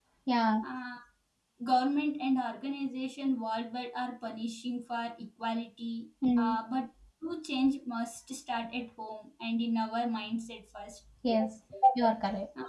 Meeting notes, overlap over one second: none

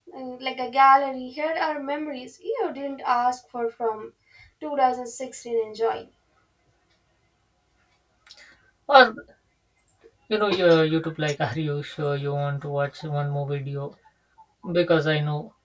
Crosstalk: none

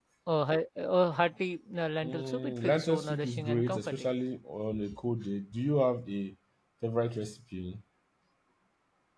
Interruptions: present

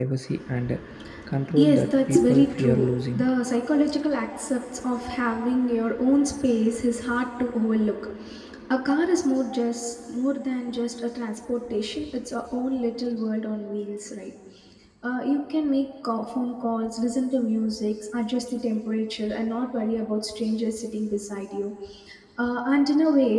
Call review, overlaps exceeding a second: present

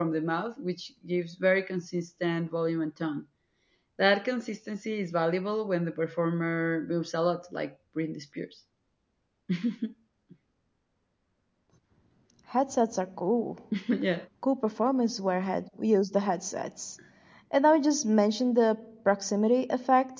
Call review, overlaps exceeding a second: none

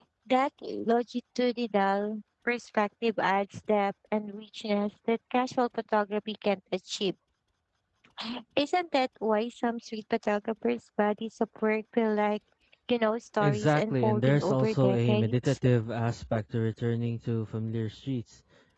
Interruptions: present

